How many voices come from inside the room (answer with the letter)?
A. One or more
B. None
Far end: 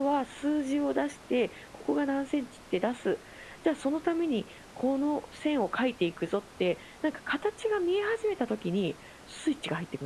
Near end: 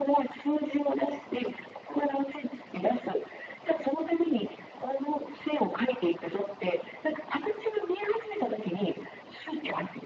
B